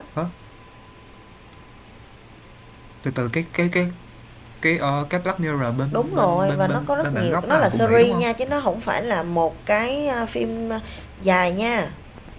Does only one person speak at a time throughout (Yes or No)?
No